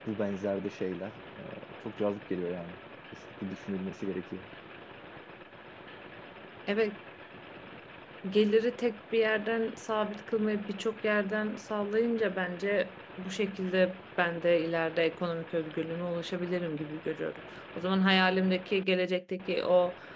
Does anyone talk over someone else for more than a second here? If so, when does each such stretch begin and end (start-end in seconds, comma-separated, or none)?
none